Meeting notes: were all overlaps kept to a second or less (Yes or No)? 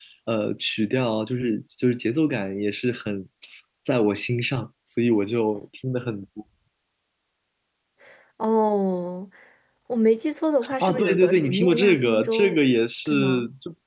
No